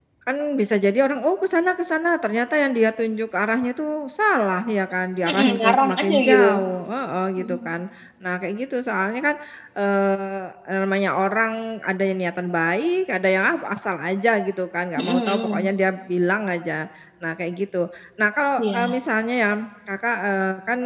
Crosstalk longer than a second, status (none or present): present